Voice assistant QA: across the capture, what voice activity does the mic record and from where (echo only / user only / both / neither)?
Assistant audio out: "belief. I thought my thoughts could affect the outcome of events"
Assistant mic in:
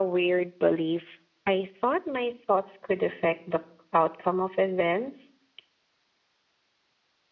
echo only